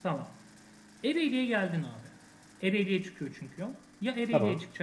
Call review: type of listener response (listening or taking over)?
listening